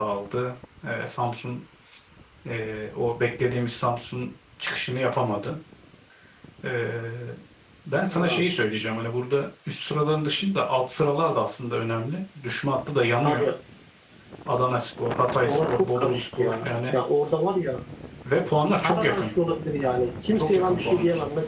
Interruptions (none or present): present